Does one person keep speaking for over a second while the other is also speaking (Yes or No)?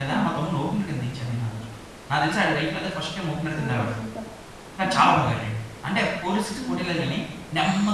No